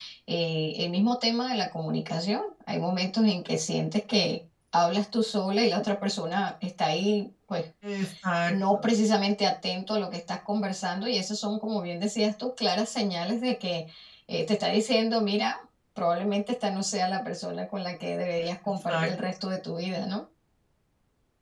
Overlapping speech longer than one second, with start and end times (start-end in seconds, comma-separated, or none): none